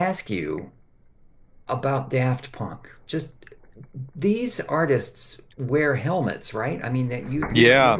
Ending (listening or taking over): taking over